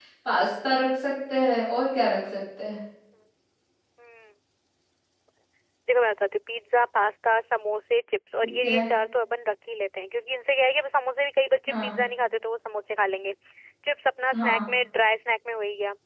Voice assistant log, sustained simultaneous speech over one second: none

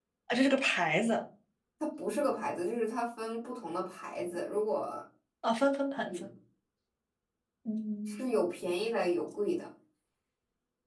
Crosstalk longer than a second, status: none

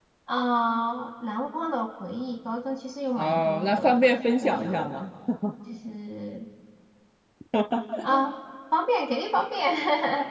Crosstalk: present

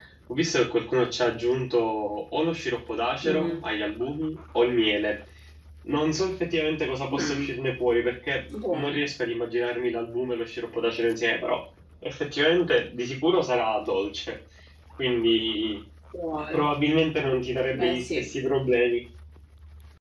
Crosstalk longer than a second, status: none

